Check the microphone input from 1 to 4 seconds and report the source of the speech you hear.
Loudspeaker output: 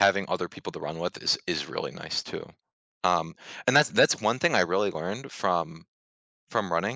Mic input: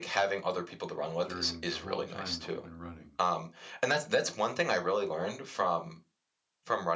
both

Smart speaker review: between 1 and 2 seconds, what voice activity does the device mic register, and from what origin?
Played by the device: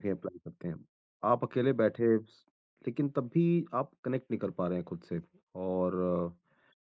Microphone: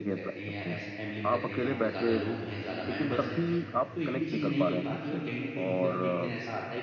both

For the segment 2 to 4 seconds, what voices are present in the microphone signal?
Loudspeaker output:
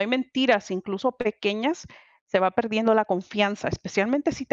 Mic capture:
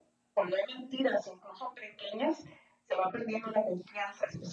echo only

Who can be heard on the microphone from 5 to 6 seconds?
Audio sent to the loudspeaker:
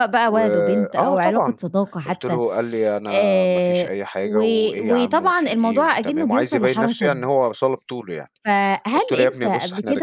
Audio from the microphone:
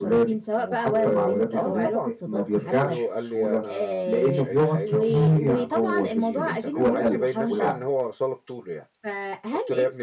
both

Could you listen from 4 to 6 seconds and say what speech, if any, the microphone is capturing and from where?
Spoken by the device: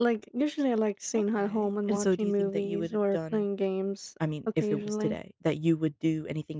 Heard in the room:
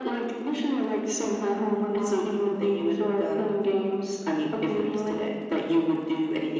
echo only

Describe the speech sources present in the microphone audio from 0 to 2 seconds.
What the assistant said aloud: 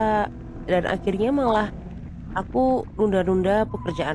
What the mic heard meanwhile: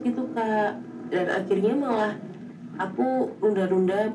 echo only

